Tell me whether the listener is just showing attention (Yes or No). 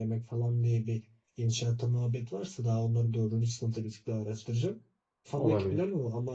Yes